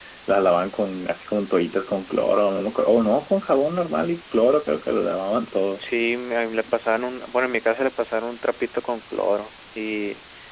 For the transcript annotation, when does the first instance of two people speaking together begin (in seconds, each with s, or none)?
none